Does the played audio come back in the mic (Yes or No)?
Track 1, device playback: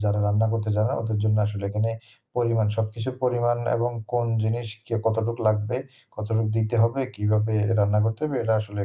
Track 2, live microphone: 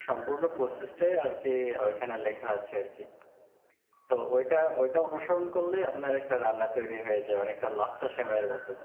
No